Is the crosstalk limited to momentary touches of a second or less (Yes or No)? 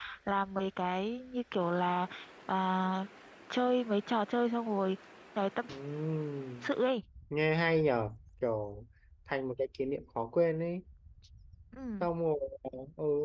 Yes